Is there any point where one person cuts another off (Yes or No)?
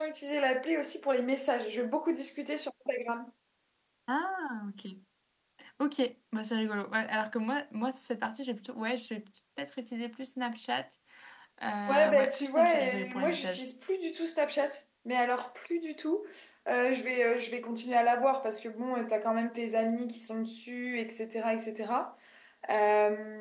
Yes